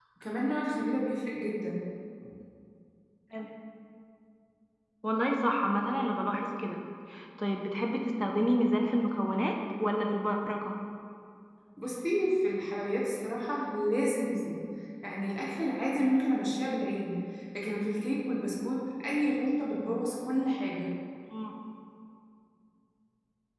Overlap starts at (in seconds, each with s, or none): none